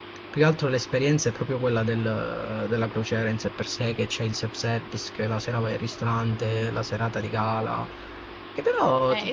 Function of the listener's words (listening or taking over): taking over